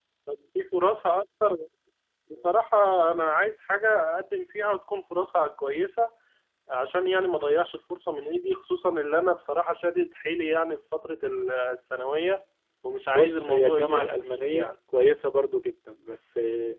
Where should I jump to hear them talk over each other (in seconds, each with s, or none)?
13.1 s